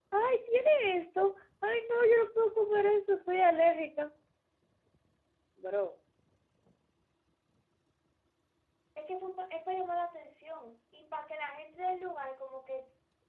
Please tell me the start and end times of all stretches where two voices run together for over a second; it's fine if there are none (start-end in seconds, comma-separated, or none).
none